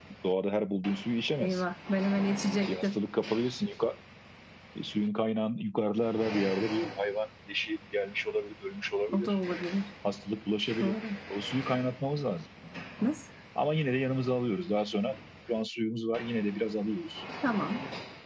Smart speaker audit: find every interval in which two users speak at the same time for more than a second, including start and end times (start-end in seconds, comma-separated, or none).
none